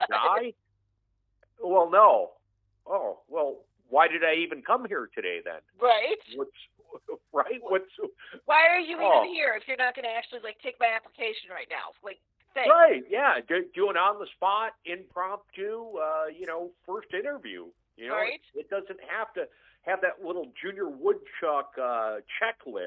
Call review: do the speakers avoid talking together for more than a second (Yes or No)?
Yes